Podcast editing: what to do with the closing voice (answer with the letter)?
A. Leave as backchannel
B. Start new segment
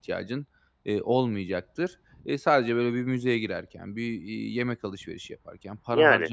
A